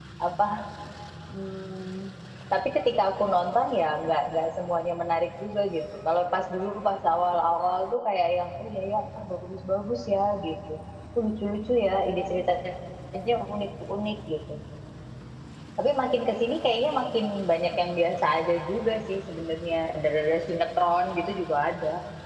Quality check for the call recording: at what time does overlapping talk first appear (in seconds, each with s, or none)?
none